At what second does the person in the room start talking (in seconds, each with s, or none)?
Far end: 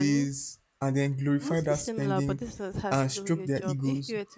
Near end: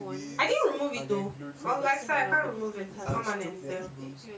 0.4 s